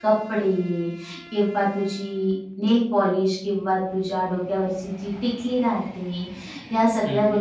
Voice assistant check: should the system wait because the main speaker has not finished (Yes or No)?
Yes